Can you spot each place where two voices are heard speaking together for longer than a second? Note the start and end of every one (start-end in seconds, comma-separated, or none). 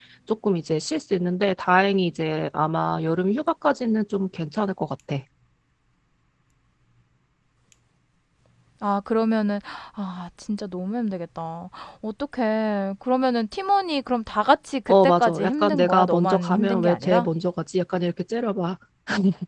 14.9-17.3